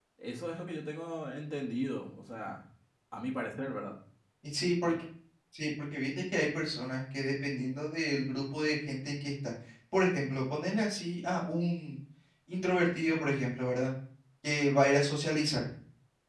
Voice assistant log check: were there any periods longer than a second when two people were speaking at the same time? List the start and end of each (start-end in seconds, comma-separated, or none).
none